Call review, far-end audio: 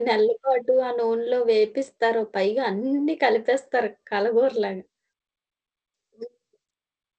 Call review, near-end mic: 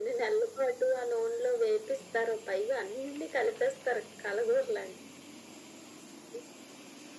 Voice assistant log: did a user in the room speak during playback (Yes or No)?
No